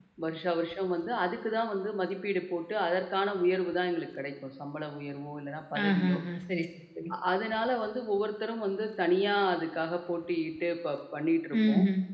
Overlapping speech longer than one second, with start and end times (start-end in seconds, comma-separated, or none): none